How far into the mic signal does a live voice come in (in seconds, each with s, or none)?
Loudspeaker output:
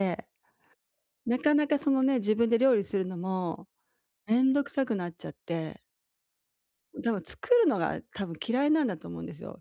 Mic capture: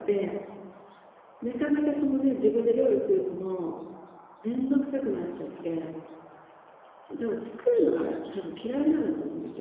none